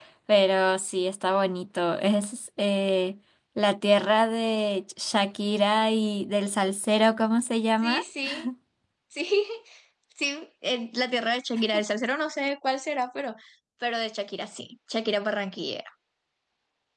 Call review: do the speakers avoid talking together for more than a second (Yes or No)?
Yes